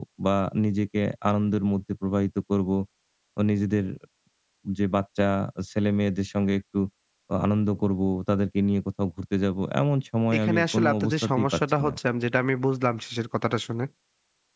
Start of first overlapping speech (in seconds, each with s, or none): 10.3 s